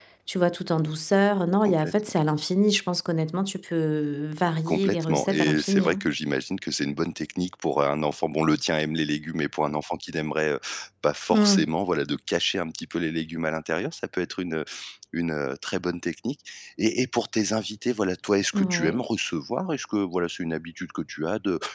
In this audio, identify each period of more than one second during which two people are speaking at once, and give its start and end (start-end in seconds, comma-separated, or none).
4.7-6.0